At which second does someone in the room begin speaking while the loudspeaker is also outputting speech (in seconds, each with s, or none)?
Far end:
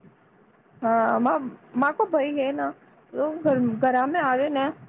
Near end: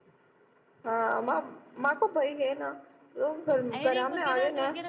3.8 s